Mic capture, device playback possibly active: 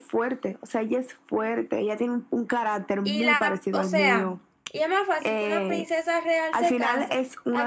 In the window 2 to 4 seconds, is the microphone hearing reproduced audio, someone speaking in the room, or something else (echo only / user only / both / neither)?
both